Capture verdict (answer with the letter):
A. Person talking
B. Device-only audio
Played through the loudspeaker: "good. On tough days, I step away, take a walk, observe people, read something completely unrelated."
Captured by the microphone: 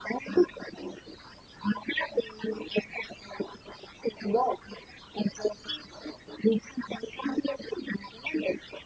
B